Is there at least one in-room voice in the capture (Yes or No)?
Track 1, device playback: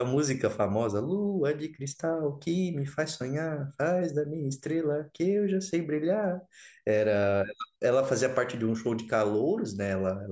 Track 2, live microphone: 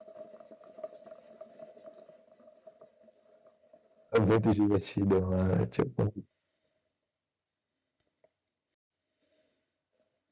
Yes